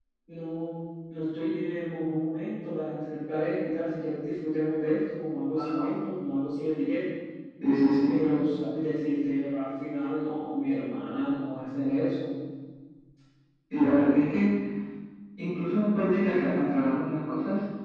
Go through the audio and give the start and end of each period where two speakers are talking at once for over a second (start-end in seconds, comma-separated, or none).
none